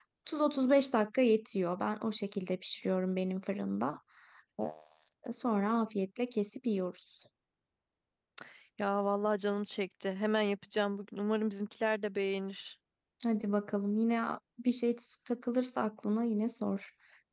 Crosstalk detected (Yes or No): No